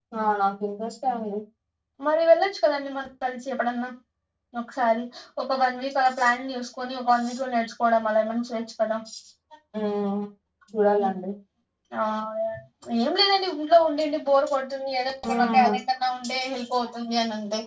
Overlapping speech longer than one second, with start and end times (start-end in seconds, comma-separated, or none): none